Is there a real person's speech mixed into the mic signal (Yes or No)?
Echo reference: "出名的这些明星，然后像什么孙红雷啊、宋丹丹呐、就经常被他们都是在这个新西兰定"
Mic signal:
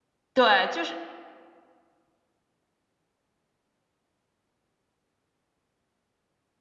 Yes